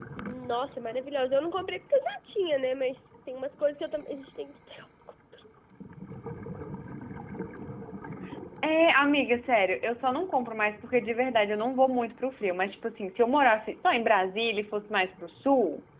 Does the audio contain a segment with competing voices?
No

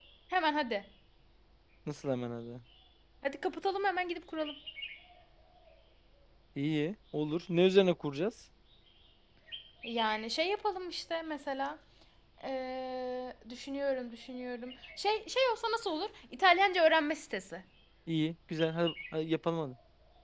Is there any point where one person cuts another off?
No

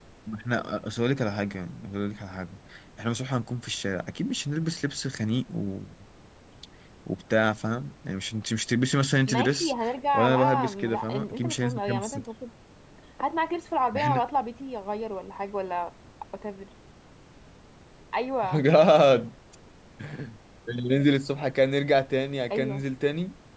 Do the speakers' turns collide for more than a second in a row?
Yes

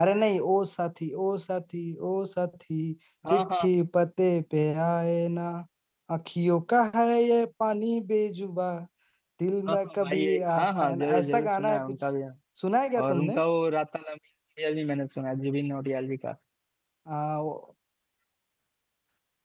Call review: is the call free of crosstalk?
No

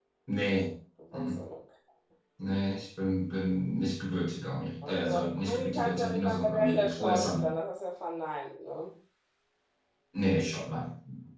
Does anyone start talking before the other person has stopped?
Yes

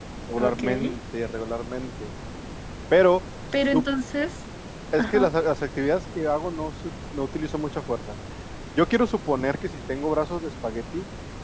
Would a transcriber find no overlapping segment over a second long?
Yes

